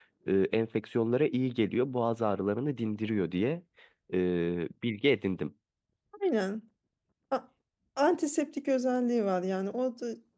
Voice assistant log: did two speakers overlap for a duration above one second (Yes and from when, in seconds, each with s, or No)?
No